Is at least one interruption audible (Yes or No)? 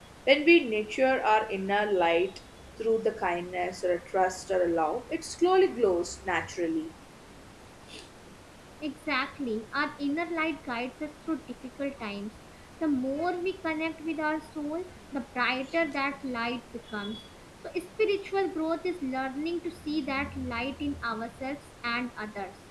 No